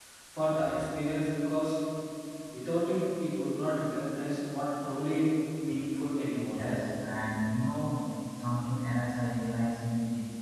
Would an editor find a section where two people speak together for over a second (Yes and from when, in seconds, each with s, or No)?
No